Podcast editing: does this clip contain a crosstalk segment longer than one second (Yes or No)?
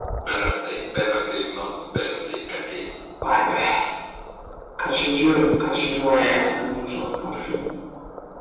No